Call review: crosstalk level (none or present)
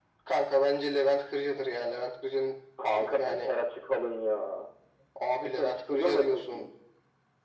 present